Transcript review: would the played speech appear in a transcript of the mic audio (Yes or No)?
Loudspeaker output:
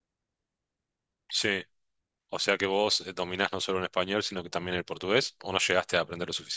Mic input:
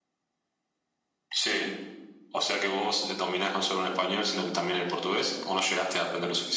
Yes